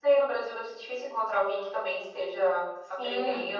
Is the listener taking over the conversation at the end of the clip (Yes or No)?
Yes